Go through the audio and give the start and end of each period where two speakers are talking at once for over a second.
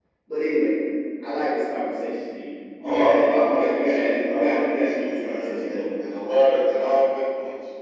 2.8-5.9

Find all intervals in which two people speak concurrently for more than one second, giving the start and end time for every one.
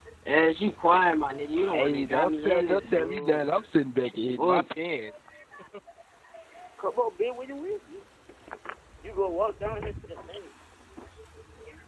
1.7-3.4

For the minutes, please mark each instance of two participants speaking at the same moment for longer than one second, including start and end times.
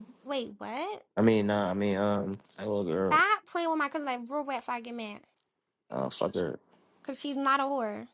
none

